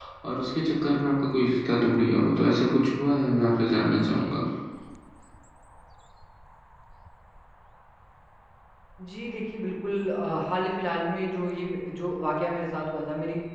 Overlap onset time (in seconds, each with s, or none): none